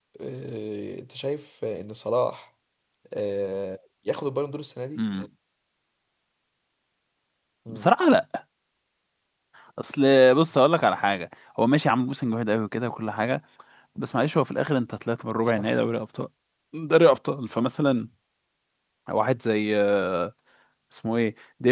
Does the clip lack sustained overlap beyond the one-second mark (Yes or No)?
Yes